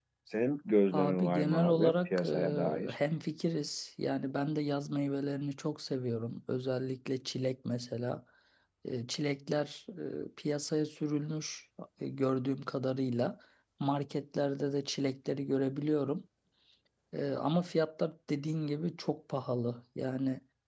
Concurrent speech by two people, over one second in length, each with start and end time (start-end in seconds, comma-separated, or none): 0.9-3.0